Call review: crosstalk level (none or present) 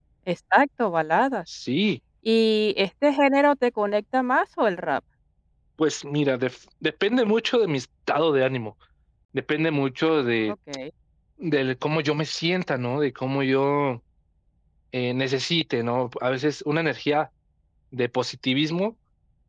none